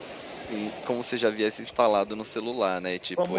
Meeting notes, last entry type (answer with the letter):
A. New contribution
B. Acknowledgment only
A